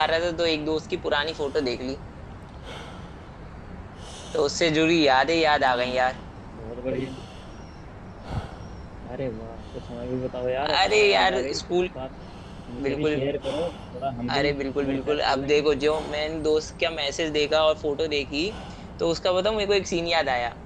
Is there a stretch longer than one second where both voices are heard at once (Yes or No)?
Yes